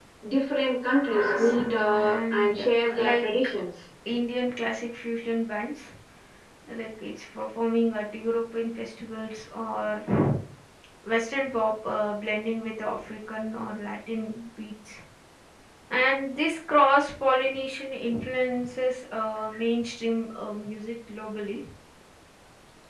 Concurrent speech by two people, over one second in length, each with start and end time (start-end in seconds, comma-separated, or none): 1.1-3.3